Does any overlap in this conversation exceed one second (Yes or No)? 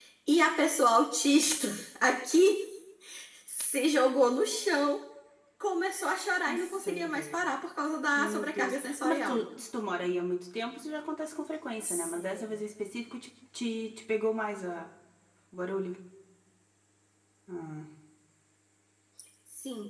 Yes